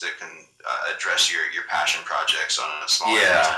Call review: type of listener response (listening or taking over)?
taking over